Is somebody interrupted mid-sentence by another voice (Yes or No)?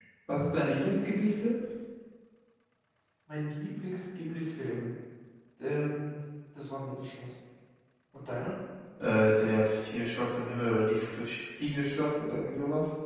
No